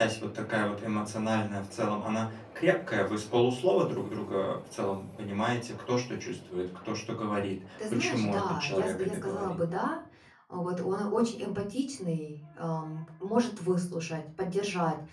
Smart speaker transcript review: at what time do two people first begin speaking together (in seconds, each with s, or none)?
7.8 s